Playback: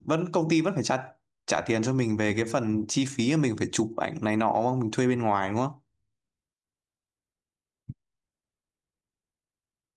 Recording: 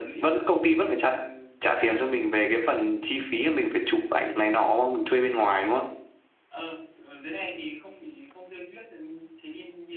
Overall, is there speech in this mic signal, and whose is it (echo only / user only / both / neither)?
both